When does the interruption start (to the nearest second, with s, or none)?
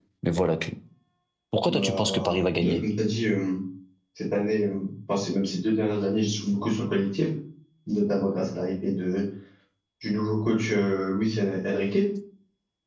2 s